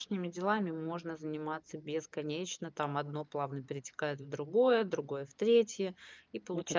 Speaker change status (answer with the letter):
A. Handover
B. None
B